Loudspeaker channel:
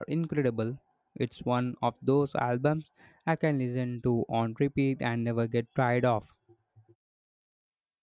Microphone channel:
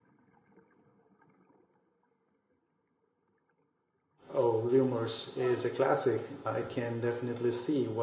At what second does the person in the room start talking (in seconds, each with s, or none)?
4.3 s